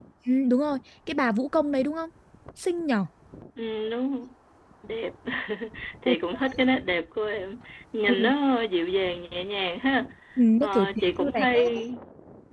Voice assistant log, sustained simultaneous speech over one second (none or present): present